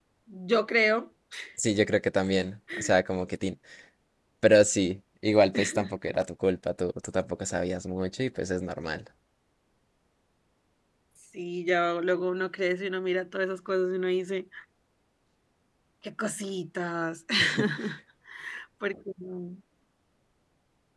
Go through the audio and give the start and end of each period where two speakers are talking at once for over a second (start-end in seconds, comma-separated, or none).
none